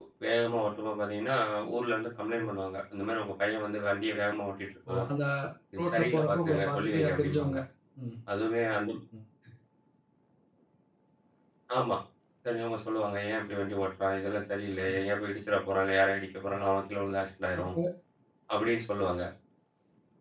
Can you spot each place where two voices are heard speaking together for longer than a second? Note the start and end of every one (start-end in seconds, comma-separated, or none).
5.8-7.6